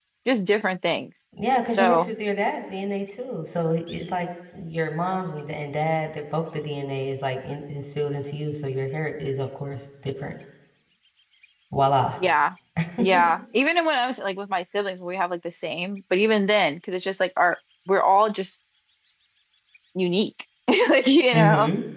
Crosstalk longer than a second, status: none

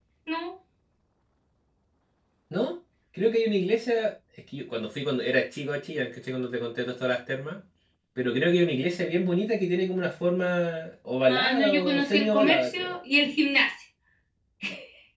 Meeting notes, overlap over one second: present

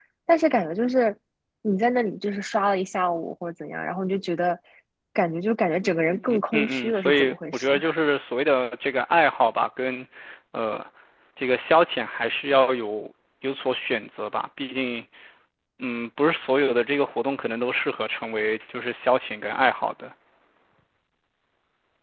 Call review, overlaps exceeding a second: present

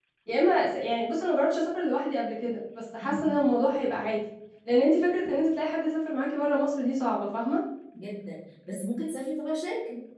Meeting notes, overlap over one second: none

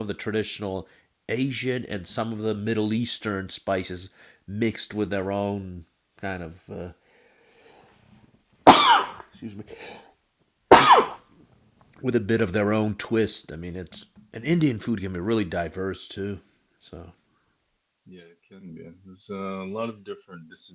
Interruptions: none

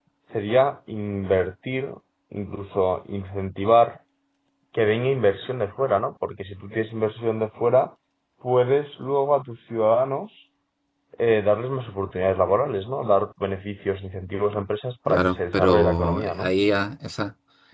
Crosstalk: present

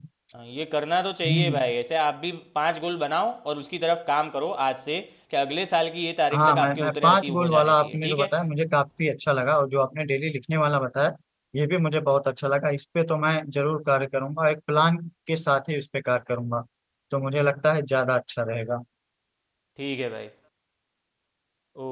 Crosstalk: present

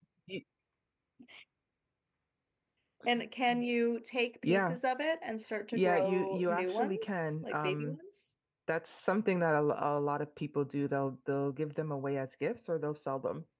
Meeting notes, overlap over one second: present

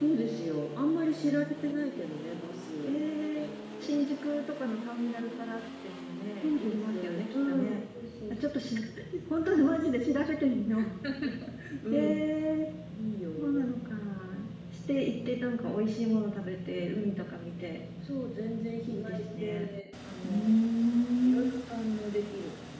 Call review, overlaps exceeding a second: present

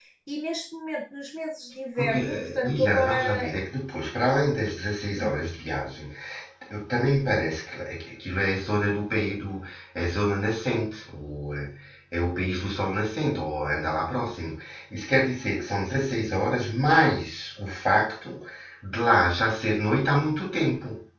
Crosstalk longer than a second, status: present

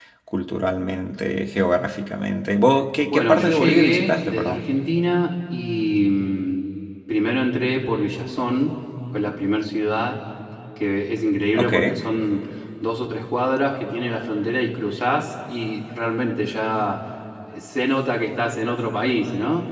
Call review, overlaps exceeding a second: present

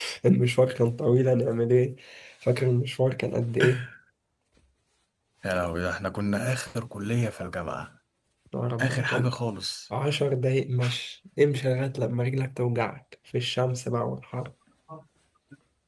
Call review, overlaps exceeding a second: none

